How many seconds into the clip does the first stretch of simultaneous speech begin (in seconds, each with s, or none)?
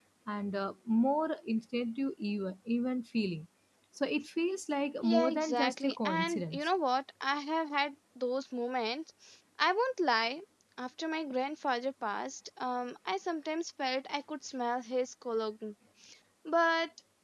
5.0 s